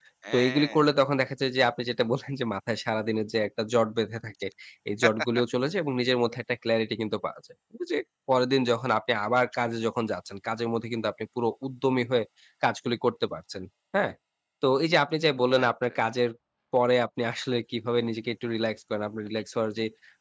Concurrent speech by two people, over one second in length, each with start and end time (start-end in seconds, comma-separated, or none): none